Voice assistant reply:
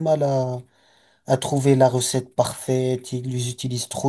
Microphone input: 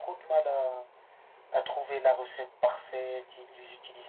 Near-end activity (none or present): none